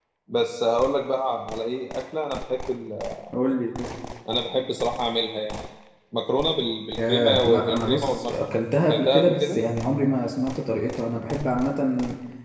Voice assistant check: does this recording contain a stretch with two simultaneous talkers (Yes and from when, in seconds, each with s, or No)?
Yes, from 7.0 s